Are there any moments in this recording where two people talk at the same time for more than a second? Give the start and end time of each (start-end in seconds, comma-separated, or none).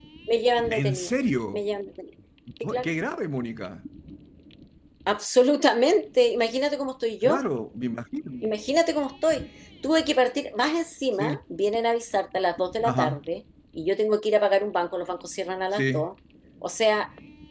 none